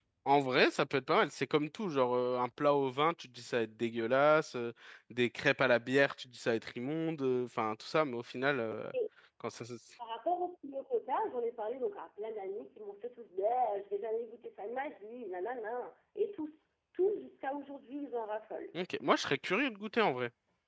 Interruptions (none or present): none